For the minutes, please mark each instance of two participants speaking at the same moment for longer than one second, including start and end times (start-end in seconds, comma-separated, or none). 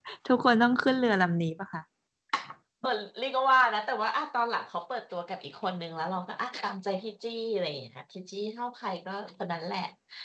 none